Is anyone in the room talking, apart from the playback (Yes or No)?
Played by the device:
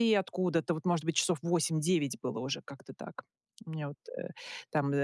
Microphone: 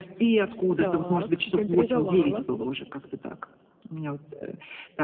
Yes